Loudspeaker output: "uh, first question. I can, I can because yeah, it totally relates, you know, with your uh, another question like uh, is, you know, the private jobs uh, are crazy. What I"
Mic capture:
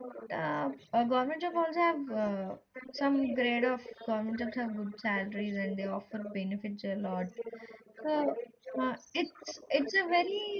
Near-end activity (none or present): present